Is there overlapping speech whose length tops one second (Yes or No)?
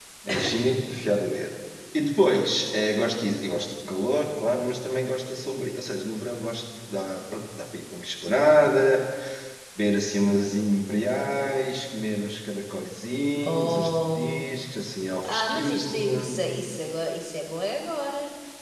Yes